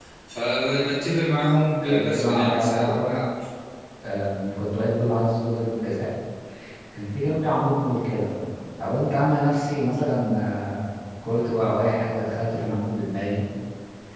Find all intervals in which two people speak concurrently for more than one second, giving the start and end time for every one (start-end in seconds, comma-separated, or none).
1.9-3.1